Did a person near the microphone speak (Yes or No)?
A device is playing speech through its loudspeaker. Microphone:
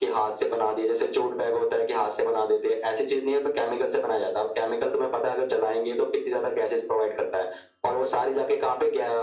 No